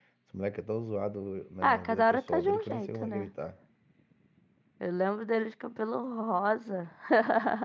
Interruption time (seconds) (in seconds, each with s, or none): 1.6 s